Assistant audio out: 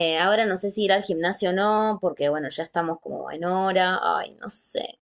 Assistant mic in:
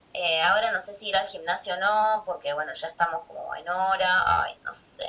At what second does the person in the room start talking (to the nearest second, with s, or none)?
none